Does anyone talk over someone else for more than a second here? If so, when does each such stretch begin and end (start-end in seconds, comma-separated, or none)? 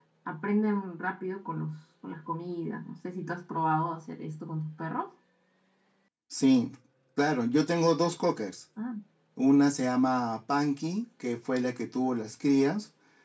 none